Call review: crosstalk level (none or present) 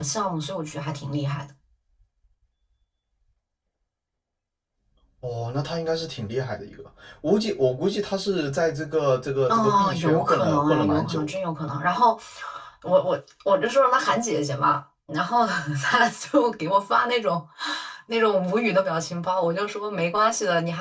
present